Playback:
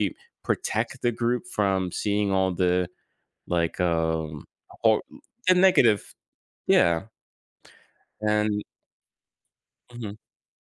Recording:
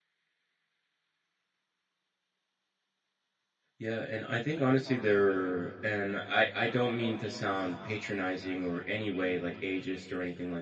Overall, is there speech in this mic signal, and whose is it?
user only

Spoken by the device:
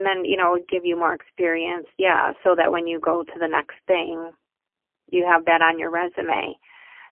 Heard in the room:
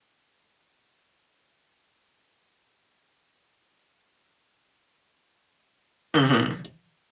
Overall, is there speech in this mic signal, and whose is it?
user only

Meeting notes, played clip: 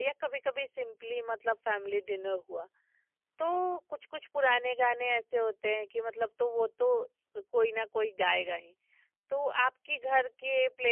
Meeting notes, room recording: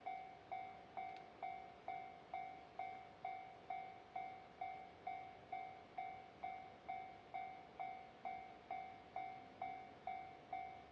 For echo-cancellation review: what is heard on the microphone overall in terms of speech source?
neither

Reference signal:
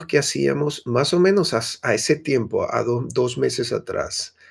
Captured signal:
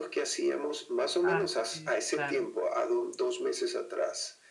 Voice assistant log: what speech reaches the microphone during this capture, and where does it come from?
both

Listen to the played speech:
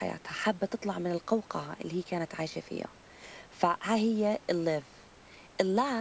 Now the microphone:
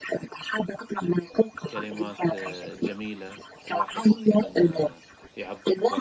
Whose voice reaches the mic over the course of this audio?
both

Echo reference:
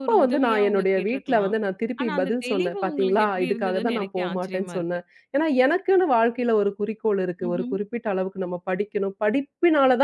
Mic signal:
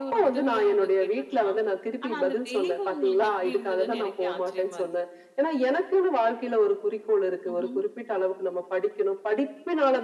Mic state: echo only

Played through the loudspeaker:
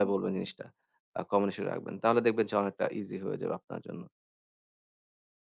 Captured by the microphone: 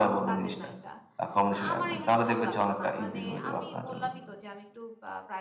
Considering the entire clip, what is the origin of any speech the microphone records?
both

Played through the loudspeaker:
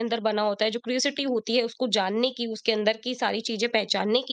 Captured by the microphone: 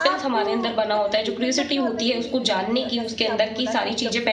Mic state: both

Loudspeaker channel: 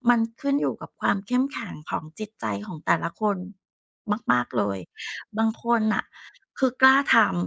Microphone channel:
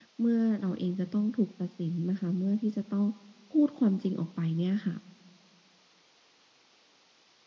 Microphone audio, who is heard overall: user only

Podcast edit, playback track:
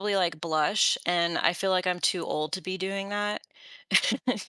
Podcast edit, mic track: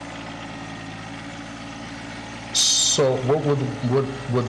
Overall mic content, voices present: user only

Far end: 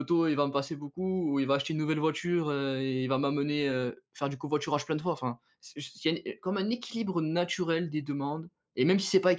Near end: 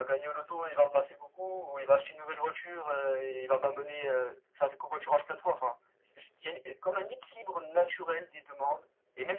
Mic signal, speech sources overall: echo only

